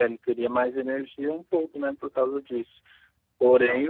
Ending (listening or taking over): listening